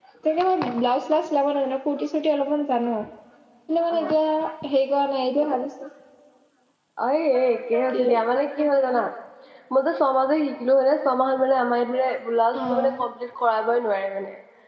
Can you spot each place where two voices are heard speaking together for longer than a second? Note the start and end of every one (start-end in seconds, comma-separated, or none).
none